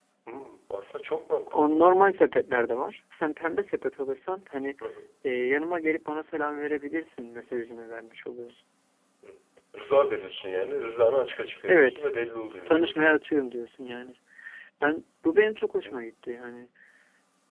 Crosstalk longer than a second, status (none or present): none